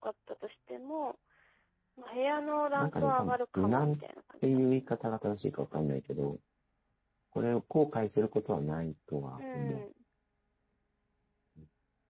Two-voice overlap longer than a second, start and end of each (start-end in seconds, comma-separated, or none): 2.7-4.0